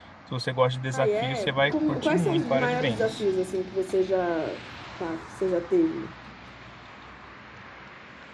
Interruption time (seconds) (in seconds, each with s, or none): 0.9 s